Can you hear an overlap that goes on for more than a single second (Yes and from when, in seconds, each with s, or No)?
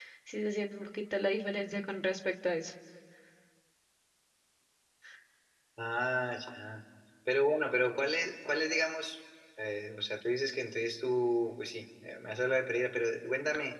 No